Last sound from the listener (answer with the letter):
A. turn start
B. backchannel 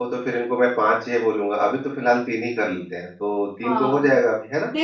A